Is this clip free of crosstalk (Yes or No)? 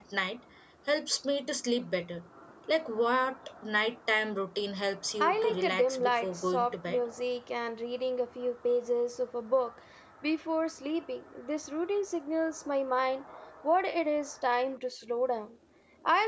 No